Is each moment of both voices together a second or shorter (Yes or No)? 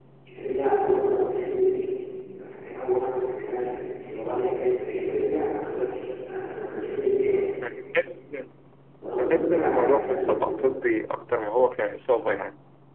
No